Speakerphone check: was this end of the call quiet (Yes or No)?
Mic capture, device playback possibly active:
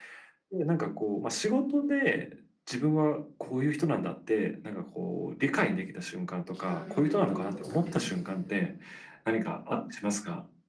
No